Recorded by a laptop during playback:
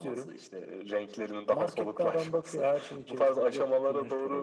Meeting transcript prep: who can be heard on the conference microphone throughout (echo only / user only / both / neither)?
echo only